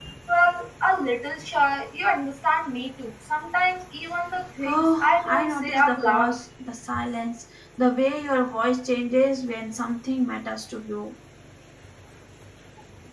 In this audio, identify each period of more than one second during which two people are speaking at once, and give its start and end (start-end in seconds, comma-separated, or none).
4.6-6.4